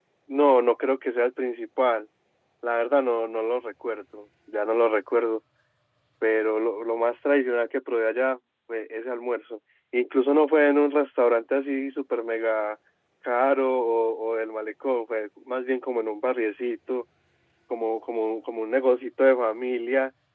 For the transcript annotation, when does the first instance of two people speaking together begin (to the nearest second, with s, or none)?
none